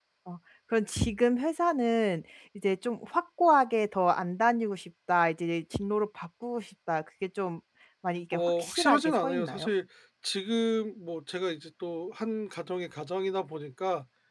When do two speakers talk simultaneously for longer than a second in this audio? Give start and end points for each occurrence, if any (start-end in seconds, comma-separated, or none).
8.3-9.7